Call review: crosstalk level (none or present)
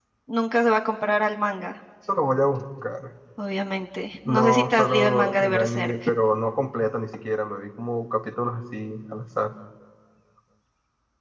present